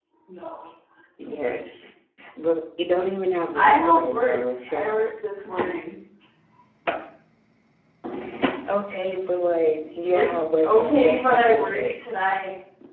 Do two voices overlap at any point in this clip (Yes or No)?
Yes